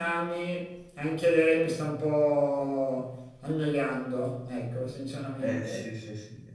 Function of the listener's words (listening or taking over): taking over